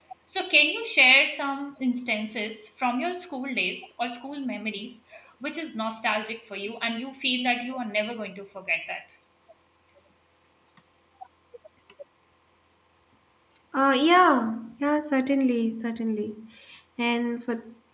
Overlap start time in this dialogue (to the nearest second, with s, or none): none